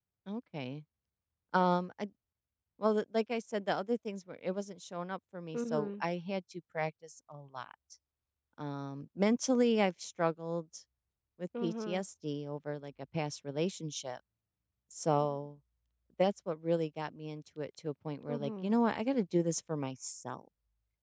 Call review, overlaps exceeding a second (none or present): none